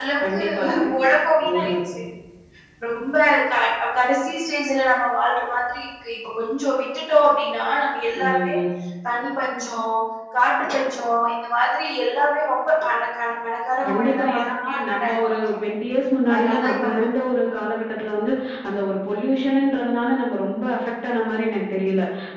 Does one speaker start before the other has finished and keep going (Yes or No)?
Yes